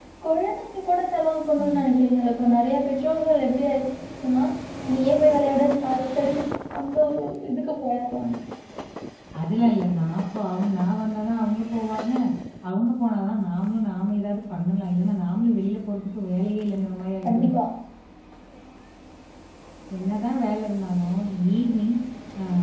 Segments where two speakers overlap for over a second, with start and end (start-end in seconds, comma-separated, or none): none